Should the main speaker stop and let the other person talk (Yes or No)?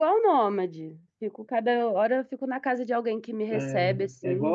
Yes